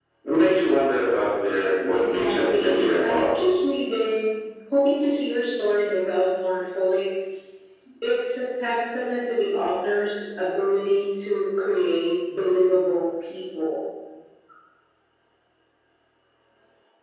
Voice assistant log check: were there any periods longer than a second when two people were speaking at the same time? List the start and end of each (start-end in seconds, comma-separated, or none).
1.9-3.6